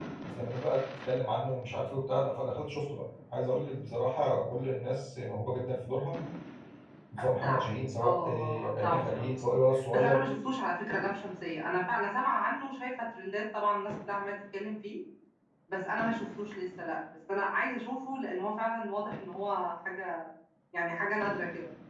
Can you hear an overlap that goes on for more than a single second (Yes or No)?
Yes